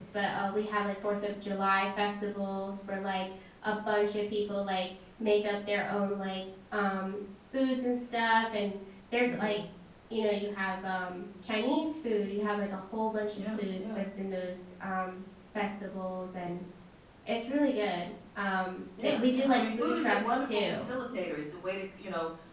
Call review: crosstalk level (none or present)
present